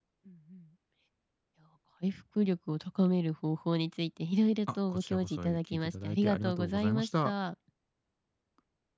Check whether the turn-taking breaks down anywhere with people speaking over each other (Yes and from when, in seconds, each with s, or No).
Yes, from 4.9 s